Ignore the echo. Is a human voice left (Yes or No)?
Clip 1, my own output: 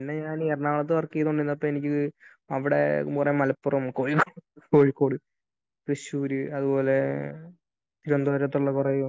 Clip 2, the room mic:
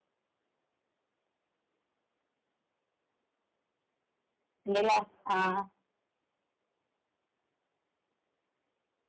Yes